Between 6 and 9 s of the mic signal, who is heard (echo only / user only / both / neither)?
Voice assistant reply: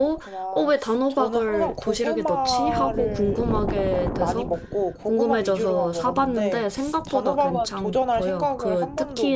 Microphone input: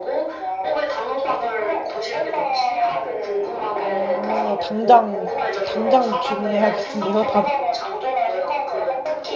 both